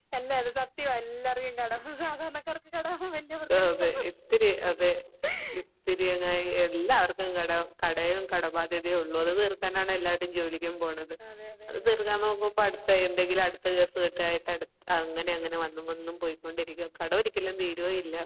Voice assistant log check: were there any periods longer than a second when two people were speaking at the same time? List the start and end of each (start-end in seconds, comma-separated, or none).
none